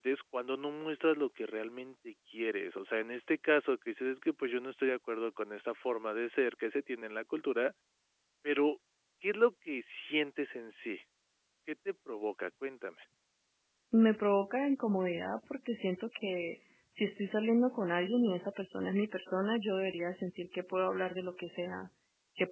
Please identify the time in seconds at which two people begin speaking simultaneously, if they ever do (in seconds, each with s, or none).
none